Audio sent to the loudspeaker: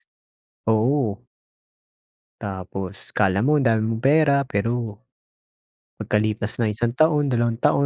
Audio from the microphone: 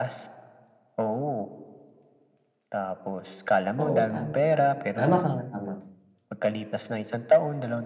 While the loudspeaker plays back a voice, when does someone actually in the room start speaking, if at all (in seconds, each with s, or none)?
3.8 s